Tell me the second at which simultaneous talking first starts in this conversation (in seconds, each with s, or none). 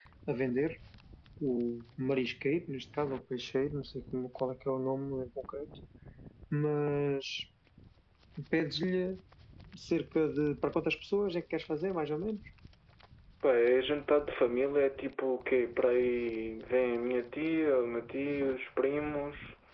none